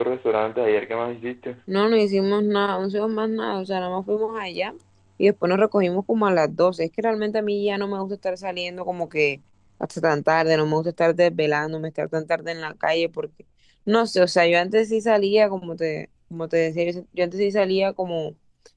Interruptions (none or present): none